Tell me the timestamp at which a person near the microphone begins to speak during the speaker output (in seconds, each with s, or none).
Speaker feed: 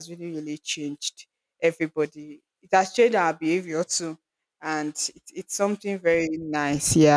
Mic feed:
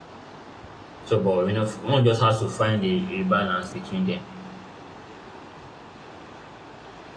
1.0 s